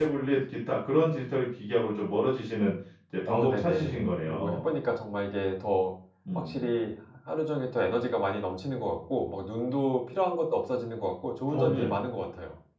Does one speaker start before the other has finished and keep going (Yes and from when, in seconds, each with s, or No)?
Yes, from 3.3 s